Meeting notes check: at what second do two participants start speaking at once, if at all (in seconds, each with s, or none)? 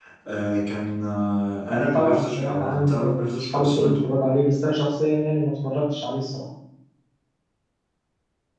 1.7 s